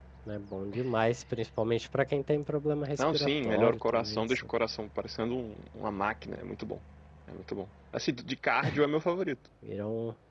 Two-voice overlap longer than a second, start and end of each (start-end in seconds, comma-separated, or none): 3.0-4.2